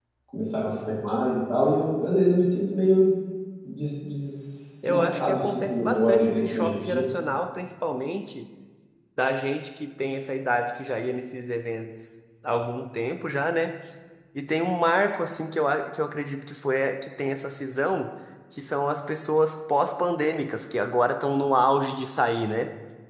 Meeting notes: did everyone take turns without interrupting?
No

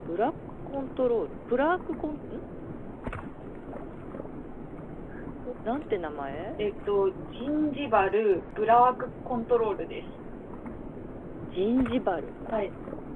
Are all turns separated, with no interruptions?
Yes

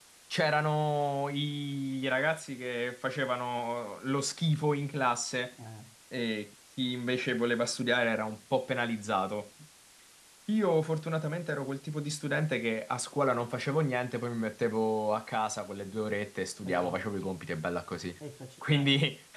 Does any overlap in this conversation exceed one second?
No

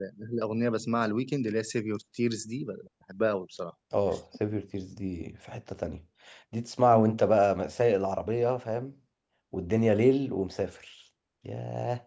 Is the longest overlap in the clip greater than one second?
No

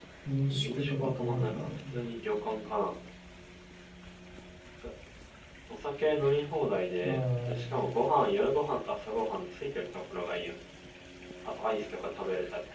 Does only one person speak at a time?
No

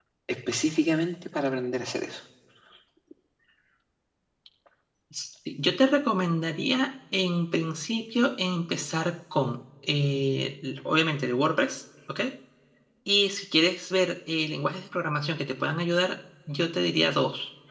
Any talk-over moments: No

